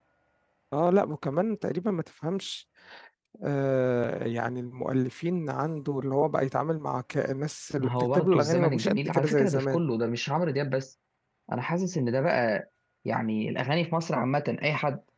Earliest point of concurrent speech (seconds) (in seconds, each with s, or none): 7.8 s